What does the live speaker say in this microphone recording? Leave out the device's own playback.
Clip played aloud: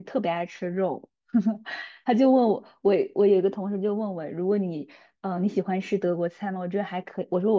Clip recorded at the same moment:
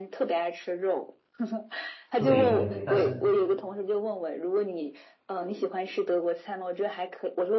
对对对，但是

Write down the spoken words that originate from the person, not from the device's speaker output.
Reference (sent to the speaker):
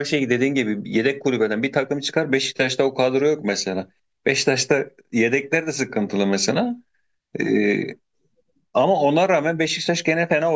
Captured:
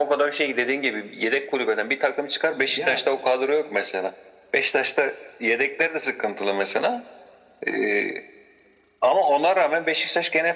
Ya

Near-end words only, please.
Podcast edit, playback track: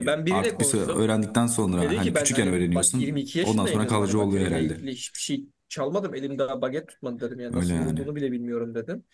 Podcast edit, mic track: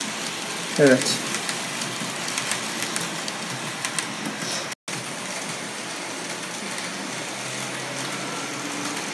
Evet.

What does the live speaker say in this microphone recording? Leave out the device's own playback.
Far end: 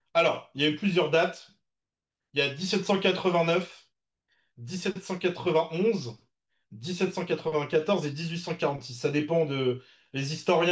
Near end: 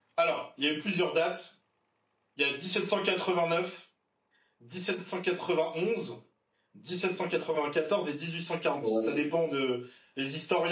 ouais,

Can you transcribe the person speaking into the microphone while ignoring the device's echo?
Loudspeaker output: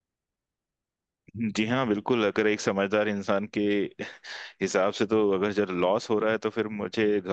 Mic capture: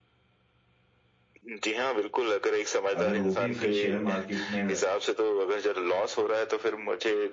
अगर वो भी फिर शेयर मार्केट में

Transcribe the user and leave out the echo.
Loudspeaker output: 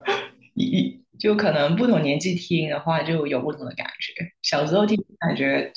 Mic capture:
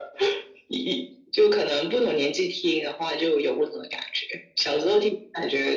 none

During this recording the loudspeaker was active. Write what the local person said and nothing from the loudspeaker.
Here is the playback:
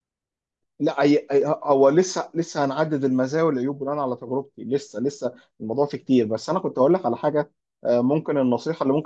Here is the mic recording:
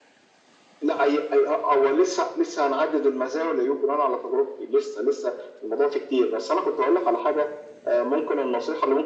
none

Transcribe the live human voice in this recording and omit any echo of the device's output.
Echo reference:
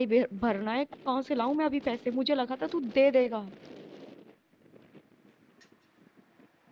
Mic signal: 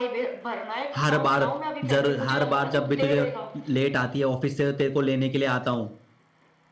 हर बार जर हर बार जब भी तुझे लेट आती है ऑफिस से तेरे को लेने के लिए आता हूँ

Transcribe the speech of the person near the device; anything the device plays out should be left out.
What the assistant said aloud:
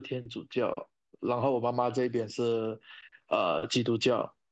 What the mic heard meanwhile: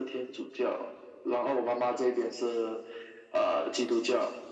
none

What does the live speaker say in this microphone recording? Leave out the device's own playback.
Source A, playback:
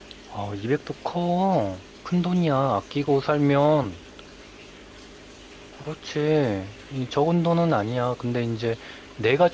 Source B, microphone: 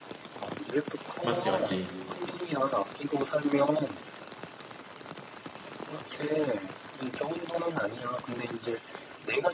맞지, 맞지.

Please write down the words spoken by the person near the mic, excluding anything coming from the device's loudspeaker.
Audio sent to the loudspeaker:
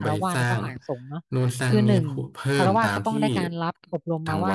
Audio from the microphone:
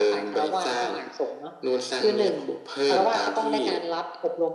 none

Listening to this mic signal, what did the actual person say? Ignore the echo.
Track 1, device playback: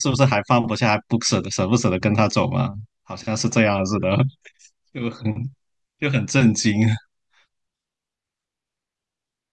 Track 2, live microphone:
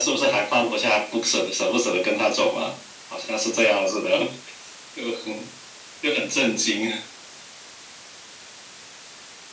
none

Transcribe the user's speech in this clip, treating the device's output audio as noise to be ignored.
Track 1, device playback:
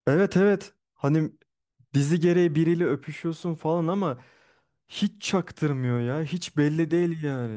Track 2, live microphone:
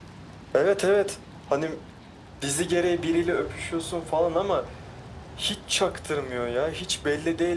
none

